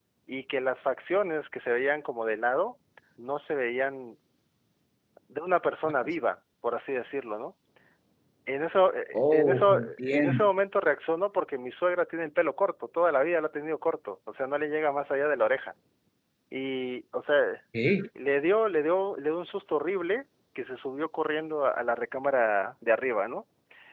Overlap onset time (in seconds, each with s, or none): 9.1 s